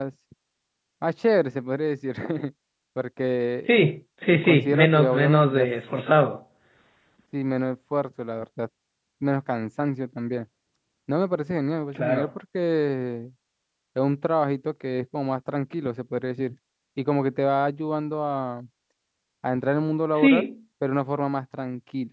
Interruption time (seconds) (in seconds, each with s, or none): 4.4 s